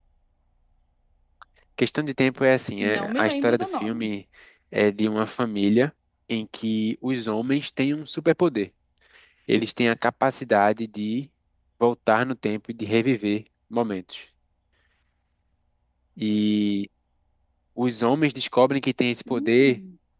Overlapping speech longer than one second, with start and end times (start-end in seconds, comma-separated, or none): 2.8-4.1